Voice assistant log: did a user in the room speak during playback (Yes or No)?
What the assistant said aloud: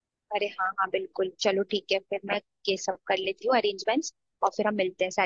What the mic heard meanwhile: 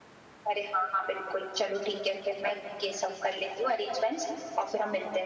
No